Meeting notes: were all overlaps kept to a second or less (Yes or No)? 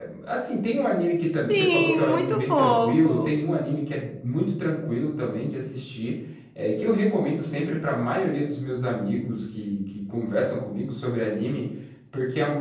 No